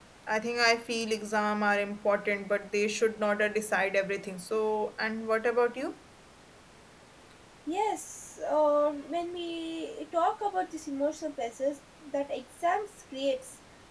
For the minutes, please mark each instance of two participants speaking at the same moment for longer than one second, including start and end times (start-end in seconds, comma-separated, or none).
none